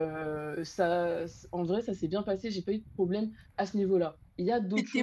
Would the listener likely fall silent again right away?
No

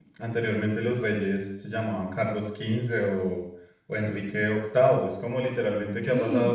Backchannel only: Yes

